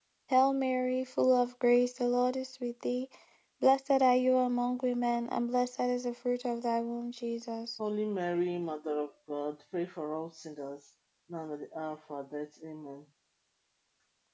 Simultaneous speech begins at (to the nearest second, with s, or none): none